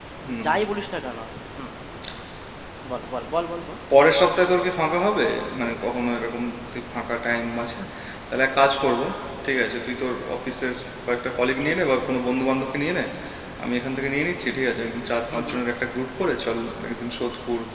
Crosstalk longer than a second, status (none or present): none